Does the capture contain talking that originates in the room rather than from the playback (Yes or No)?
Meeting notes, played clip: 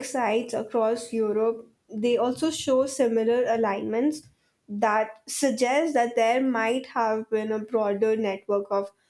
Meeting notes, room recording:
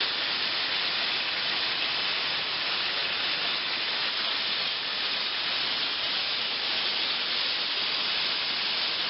No